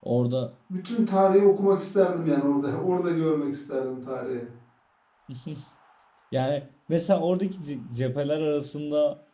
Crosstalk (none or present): none